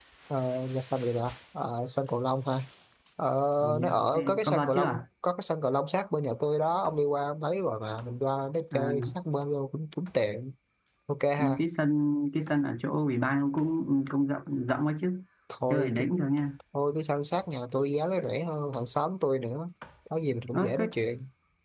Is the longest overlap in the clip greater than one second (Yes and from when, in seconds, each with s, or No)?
Yes, from 3.8 s